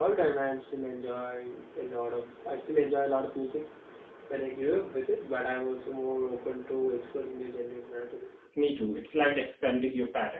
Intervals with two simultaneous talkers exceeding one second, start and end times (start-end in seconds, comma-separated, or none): none